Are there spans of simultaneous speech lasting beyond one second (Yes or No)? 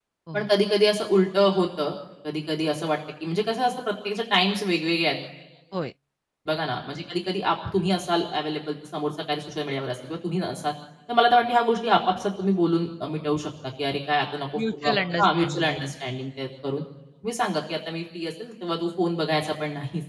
Yes